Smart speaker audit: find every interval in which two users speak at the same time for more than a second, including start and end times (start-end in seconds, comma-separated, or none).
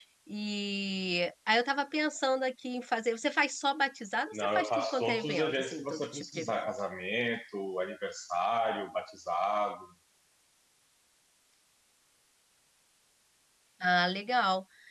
4.3-6.7